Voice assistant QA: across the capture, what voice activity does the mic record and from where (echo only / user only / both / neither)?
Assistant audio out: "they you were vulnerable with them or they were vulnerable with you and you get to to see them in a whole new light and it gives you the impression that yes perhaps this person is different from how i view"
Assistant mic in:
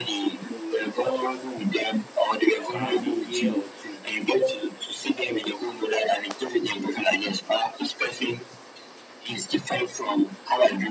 both